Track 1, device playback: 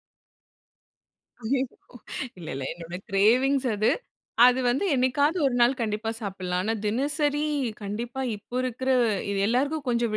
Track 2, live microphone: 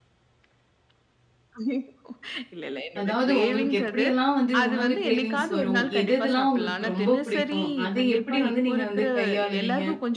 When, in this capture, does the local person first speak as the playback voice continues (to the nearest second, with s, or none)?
3 s